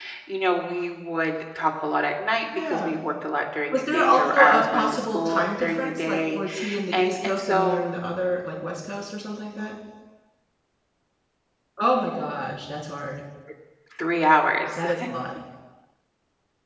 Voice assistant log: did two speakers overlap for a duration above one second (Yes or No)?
Yes